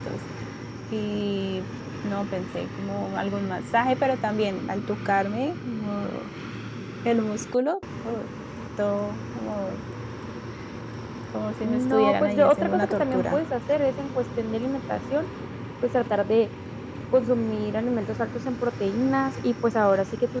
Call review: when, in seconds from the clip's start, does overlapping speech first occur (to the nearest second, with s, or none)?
12 s